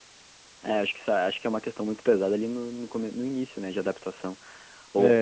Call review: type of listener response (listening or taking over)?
listening